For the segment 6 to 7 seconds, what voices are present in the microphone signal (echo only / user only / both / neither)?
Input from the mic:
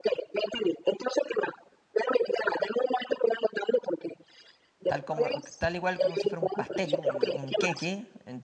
both